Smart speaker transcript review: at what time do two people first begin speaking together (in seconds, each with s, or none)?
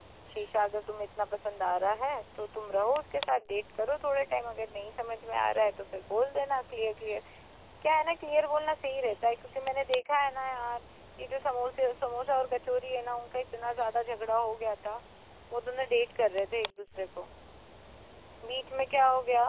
none